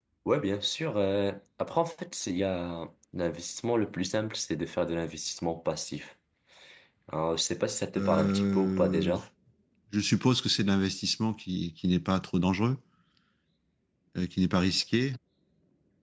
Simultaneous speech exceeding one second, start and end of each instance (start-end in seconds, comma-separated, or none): 8.0-9.2